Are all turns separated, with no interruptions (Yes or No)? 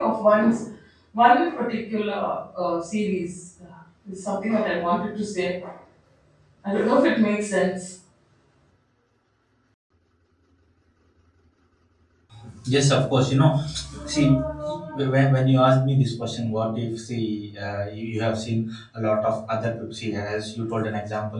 Yes